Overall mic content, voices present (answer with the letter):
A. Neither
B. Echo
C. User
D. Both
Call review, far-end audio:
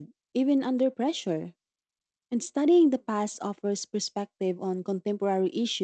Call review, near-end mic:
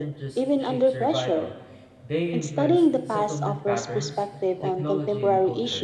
D